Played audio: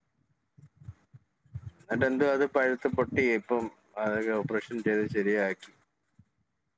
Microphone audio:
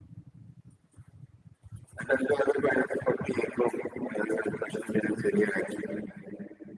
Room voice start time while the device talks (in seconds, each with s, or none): none